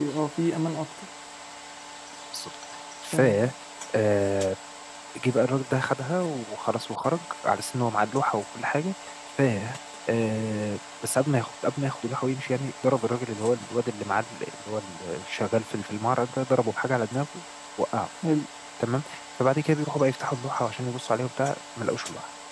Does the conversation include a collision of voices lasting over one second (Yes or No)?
No